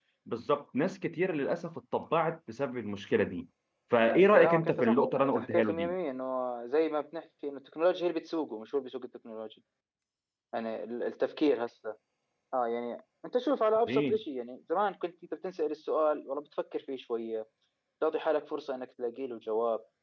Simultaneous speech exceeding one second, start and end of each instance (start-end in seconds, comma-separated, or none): 4.3-5.9